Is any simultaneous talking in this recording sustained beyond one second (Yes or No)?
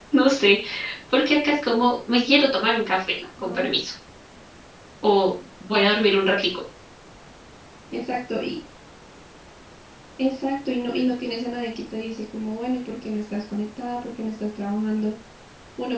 No